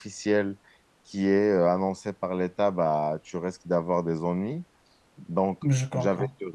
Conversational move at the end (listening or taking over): listening